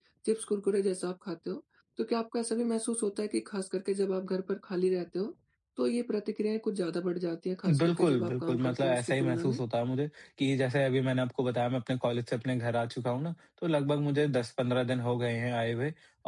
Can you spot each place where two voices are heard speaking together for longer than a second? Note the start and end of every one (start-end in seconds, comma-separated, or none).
7.7-9.6